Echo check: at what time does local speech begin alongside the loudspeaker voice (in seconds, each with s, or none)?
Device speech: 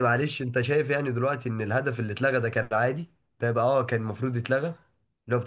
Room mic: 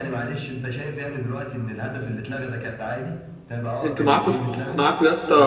3.8 s